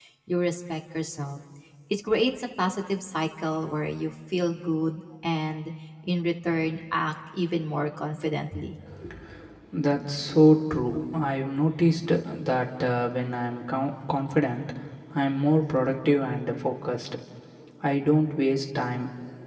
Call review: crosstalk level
none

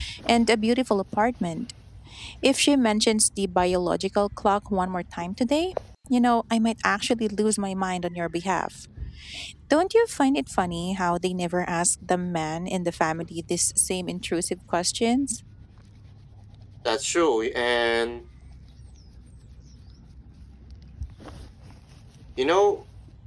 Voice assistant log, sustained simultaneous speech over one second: none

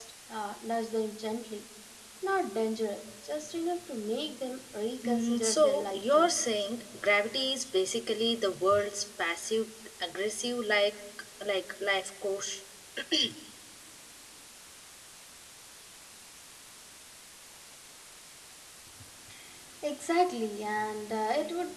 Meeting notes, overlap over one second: present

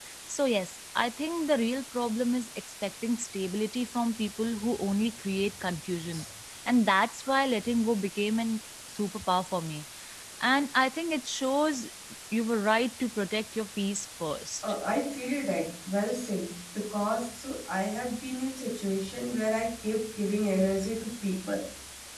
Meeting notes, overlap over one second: none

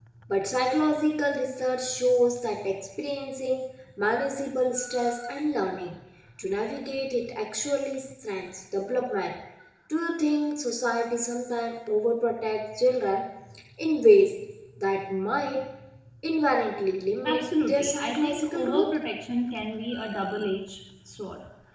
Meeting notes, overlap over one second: present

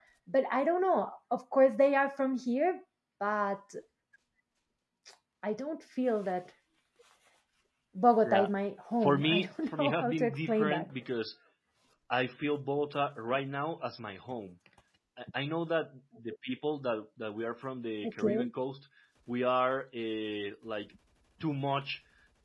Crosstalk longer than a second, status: present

